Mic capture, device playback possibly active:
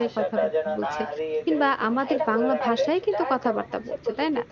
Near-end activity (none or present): present